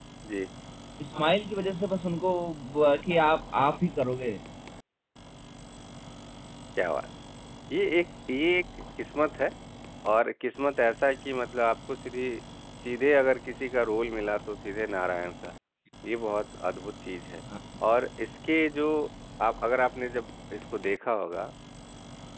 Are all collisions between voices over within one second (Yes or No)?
Yes